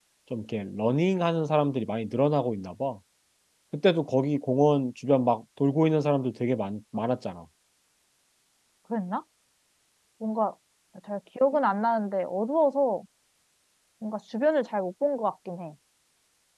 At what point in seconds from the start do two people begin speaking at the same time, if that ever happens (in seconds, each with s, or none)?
none